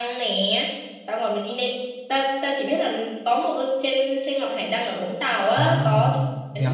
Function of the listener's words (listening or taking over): taking over